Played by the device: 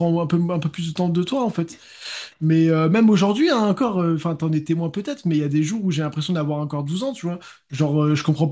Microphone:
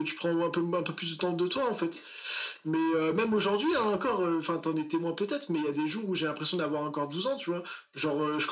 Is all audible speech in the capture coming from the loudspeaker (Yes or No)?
Yes